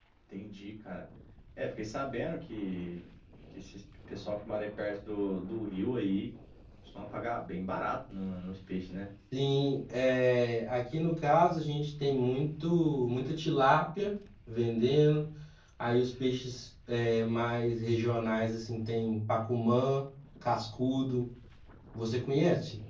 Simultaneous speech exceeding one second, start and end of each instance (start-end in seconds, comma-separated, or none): none